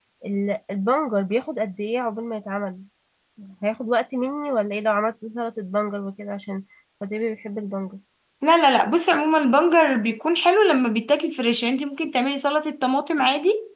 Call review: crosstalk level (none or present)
none